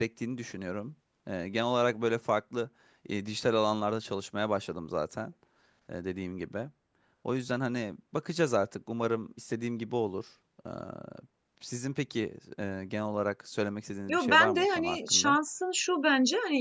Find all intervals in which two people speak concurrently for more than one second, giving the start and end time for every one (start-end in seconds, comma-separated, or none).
14.1-15.4